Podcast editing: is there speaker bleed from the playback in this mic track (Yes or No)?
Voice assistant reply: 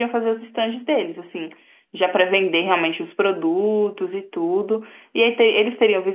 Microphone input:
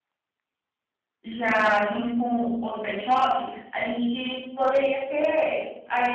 No